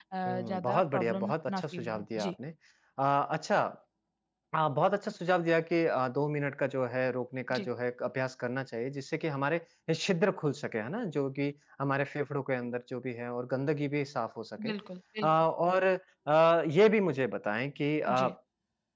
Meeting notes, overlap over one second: present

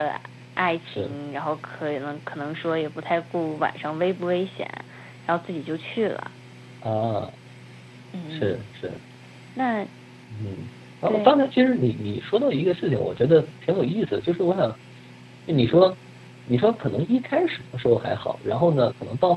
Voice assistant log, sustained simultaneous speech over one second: none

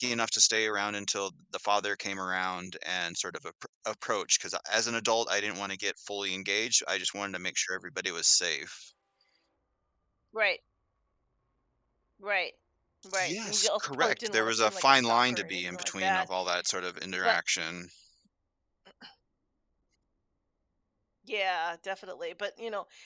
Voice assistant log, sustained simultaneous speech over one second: present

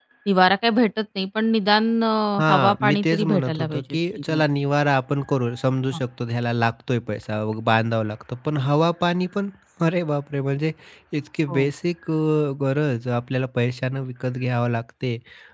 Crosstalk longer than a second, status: present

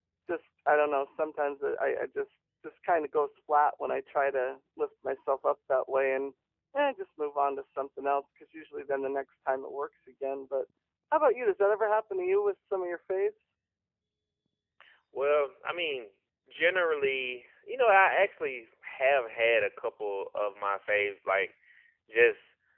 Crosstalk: none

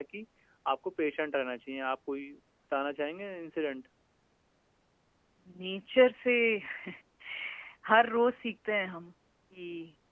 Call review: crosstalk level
none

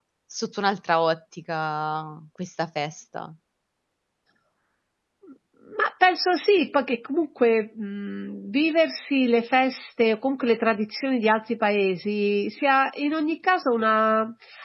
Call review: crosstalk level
none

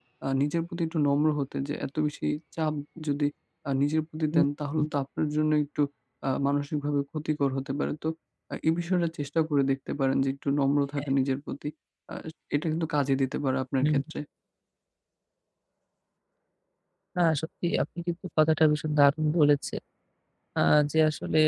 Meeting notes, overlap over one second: none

